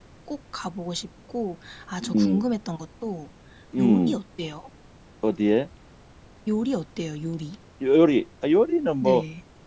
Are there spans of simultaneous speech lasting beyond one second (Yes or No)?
No